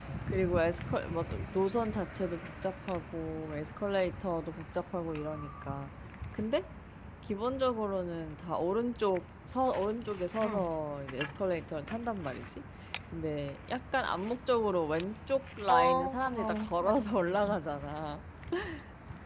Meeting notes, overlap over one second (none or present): present